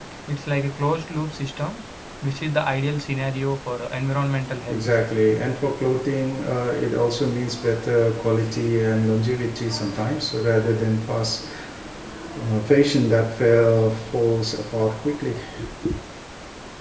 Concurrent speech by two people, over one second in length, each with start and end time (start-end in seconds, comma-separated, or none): none